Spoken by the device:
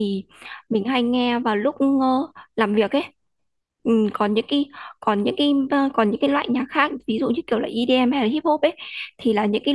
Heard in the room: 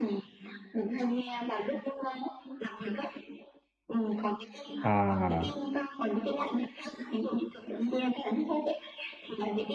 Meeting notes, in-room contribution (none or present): present